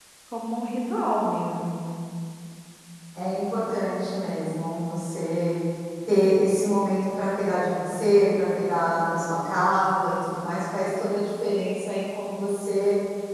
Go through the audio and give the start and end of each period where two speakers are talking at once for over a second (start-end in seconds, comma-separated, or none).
none